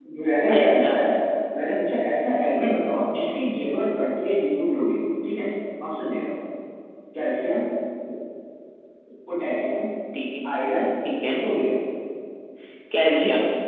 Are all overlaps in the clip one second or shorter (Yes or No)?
Yes